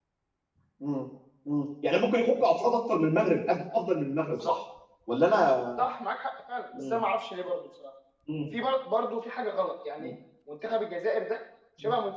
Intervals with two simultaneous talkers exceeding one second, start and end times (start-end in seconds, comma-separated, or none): none